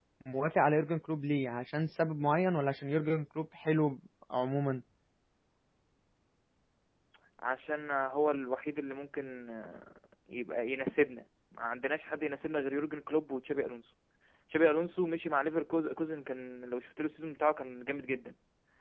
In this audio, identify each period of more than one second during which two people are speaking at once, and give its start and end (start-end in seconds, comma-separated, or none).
none